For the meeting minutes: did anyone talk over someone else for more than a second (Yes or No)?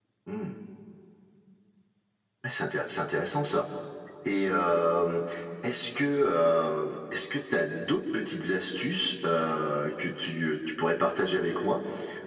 No